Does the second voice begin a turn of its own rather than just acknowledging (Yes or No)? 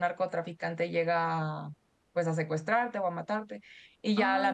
No